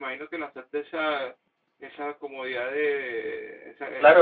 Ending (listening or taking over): taking over